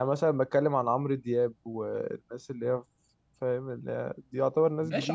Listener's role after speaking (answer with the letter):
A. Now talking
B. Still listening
A